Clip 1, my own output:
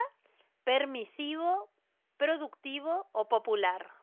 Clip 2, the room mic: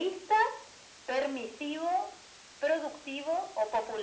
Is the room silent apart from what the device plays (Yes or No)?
Yes